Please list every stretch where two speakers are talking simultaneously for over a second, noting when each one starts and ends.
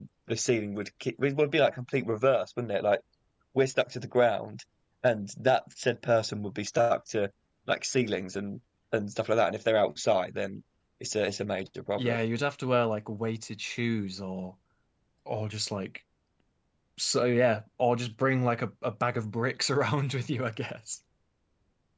none

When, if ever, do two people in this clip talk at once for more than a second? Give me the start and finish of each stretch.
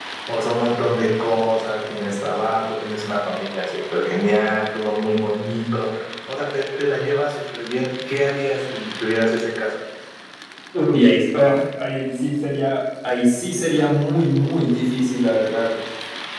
none

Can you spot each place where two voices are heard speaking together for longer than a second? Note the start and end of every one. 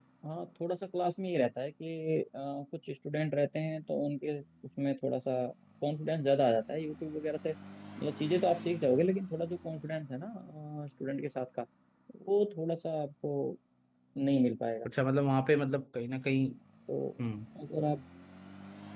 none

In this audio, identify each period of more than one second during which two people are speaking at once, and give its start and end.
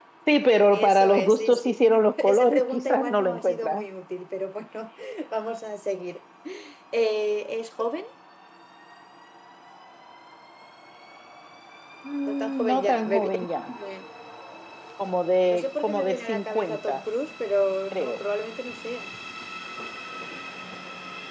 0.7-3.8, 12.3-13.7, 15.5-17.0

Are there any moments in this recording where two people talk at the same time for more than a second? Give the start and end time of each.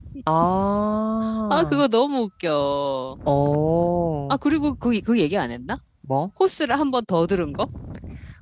none

